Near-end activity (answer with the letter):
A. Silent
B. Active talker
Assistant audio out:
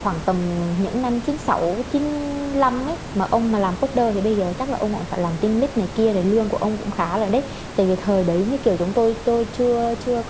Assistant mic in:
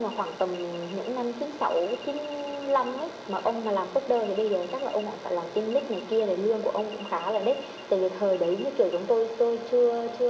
A